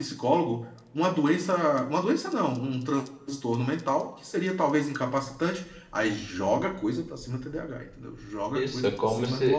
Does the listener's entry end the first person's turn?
Yes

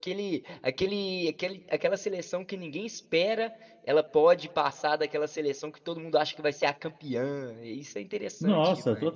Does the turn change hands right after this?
Yes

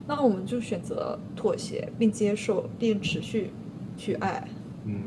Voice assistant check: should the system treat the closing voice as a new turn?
Yes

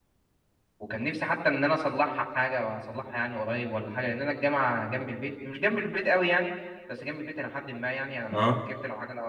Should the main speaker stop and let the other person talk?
No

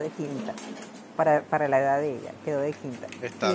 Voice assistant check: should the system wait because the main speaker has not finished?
Yes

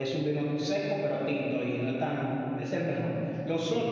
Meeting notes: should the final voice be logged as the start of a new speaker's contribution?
No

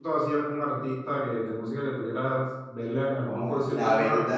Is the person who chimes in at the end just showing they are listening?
No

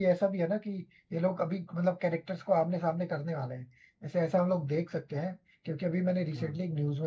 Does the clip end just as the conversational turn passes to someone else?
No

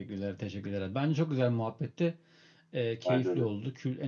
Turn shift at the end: No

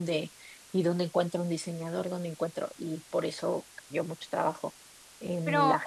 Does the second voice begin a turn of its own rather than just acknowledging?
Yes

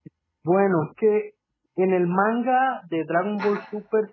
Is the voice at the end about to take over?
No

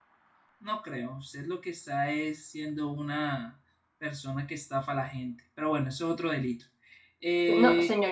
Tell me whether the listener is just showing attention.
No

